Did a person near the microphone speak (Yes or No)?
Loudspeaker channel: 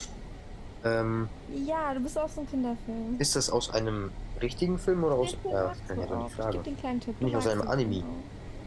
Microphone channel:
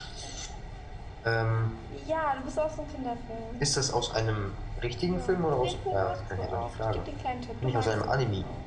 Yes